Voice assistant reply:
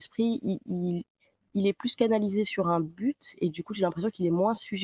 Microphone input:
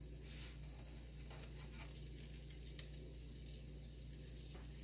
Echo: none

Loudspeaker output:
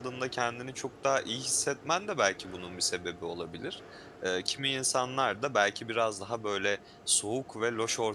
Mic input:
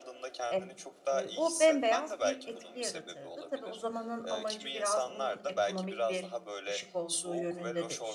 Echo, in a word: present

